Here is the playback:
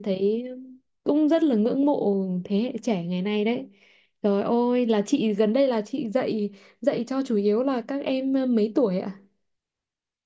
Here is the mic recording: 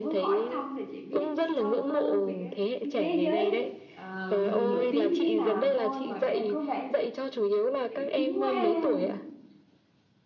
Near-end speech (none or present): present